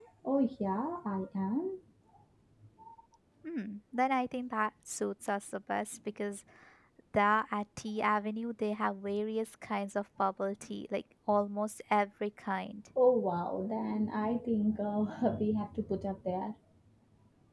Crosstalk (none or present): none